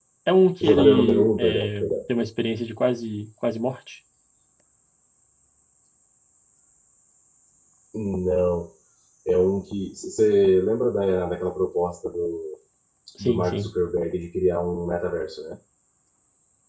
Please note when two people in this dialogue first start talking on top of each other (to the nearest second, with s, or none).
1 s